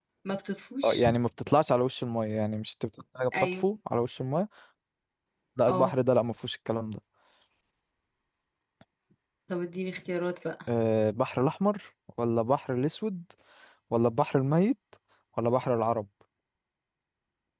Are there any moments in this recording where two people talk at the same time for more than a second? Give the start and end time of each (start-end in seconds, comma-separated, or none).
none